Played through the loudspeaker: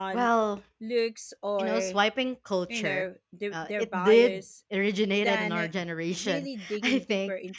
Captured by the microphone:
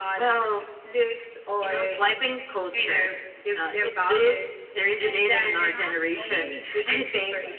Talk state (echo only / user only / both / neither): both